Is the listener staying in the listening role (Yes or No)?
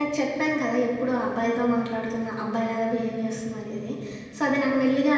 Yes